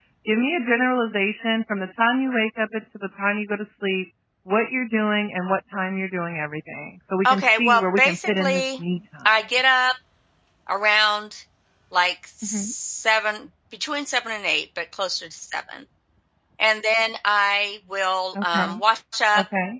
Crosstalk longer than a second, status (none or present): present